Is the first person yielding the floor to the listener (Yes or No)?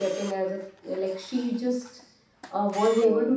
No